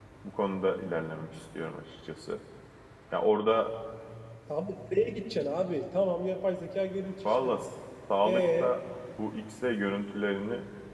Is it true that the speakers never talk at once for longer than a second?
Yes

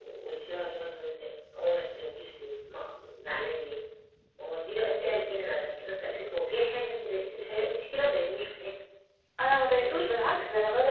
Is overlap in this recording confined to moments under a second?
Yes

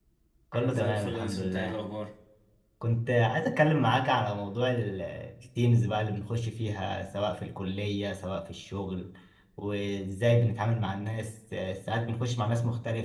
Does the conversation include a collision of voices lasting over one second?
Yes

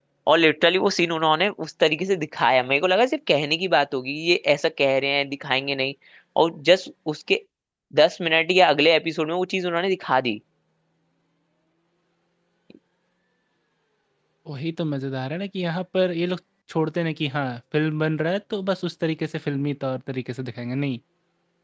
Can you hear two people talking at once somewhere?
No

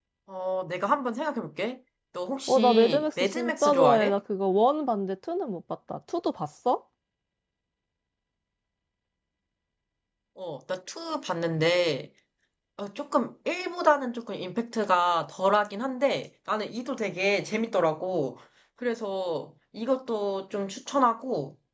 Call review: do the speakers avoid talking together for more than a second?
No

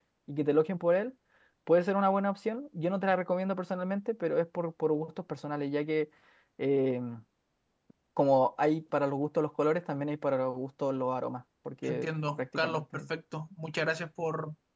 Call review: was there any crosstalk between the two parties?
Yes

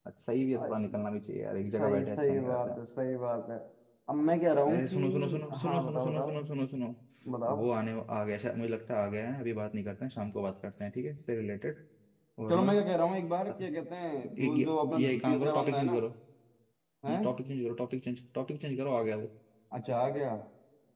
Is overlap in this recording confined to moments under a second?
No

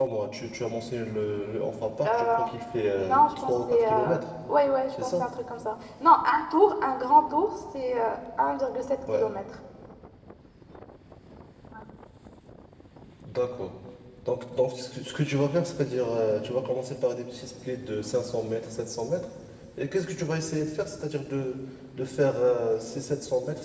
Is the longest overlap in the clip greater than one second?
Yes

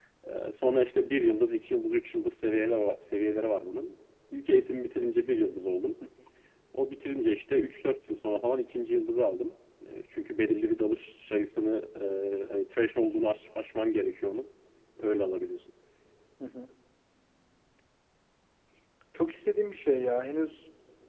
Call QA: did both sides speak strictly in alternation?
Yes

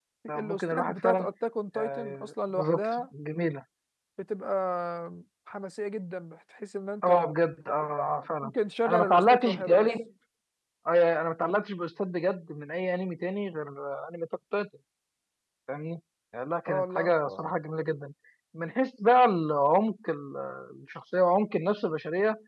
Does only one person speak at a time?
No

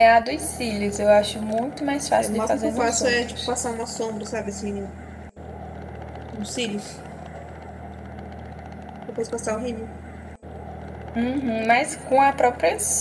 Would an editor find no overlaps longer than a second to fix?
No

